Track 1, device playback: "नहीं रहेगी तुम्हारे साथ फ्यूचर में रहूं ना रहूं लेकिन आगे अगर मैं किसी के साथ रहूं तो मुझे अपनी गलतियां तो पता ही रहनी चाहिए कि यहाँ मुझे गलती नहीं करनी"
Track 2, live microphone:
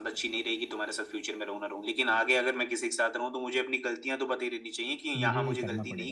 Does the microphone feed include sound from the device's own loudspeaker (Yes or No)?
Yes